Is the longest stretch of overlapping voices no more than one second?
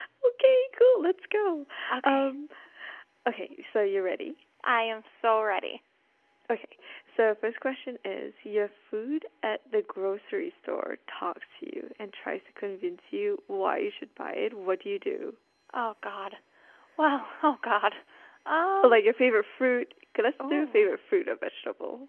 Yes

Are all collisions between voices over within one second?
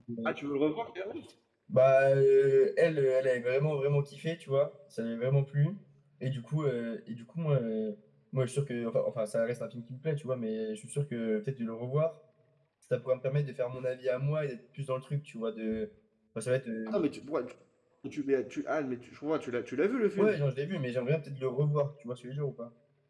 Yes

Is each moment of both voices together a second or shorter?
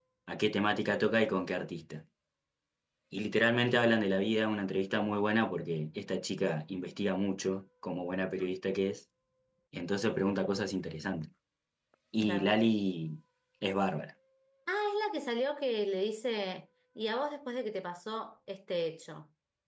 Yes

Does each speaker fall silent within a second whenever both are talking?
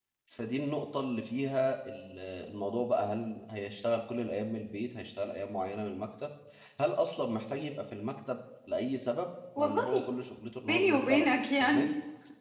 No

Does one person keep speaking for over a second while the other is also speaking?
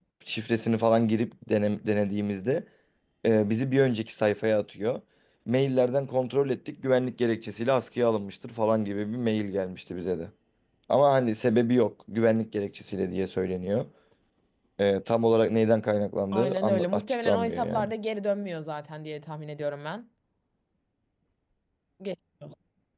Yes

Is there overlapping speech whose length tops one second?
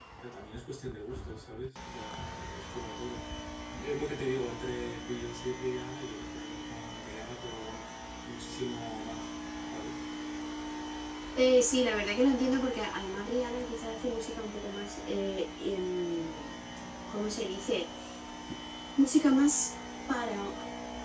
No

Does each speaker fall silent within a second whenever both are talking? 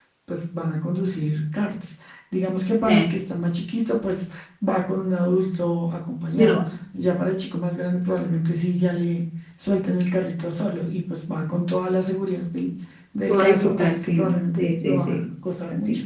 No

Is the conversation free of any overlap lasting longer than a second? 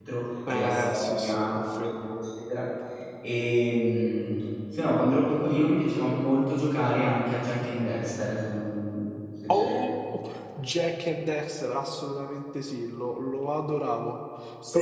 No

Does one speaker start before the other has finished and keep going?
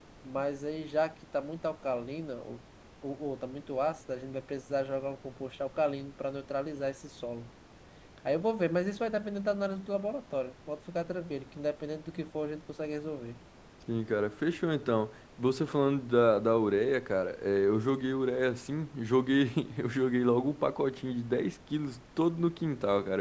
No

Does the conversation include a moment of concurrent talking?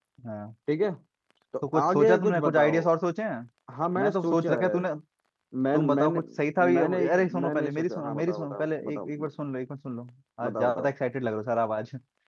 Yes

